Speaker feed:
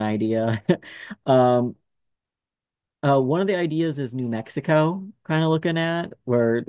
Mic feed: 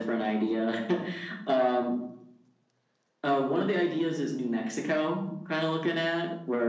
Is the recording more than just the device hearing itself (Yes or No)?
No